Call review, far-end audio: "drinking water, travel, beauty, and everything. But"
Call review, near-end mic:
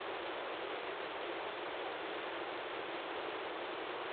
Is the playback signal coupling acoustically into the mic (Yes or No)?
No